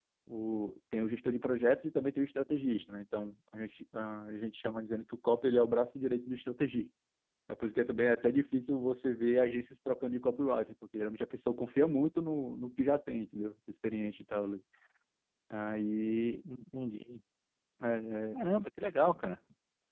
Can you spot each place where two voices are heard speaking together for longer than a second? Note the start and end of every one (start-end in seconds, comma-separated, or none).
none